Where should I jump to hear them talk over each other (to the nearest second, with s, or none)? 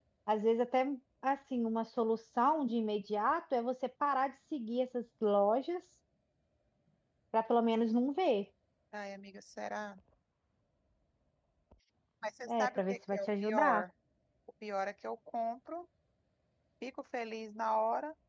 13 s